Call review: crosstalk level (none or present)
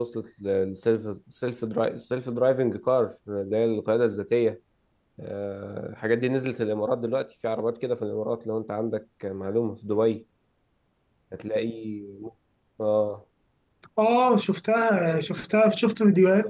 none